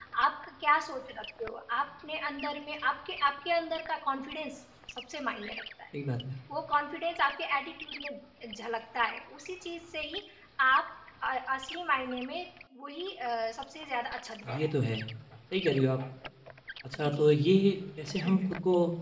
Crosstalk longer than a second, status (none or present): none